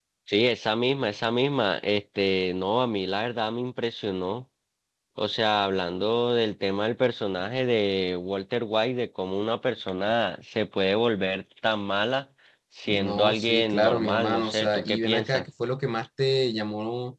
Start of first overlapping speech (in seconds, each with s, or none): 12.9 s